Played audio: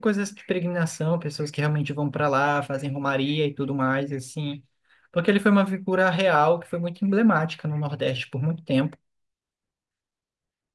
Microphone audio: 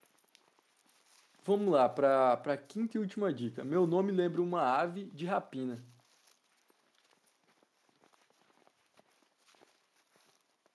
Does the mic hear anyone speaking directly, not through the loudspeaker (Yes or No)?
Yes